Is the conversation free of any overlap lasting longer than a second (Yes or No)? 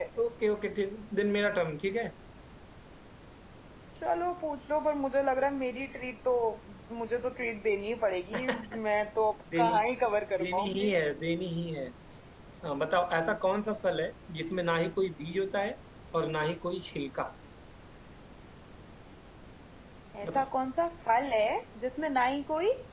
Yes